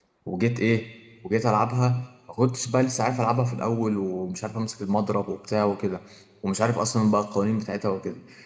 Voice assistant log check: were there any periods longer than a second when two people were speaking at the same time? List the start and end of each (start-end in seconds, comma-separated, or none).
none